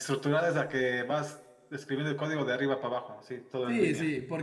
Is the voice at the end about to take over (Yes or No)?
Yes